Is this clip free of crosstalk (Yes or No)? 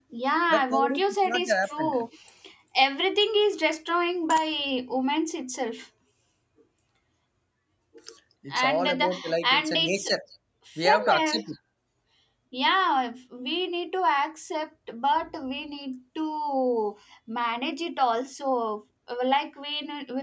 No